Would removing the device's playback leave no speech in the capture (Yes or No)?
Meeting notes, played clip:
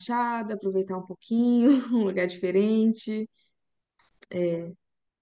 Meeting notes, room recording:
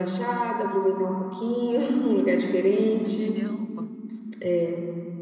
No